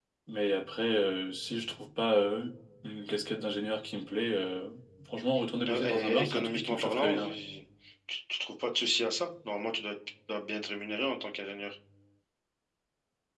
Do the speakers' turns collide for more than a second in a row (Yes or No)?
Yes